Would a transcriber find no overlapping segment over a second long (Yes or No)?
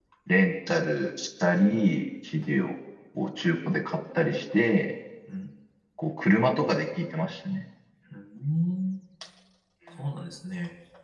Yes